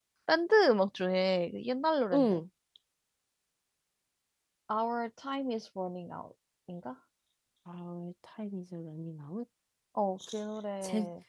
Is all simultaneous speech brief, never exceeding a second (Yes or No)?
Yes